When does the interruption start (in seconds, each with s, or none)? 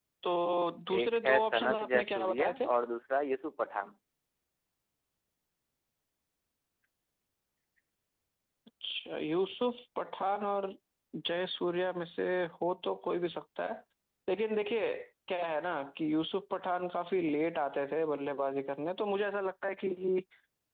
1.0 s